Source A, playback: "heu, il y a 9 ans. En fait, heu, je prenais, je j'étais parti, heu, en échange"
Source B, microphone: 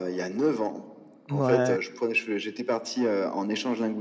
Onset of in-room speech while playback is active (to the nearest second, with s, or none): 1 s